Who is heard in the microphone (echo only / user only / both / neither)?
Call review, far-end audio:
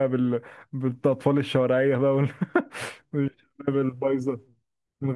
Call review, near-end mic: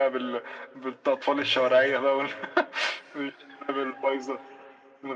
both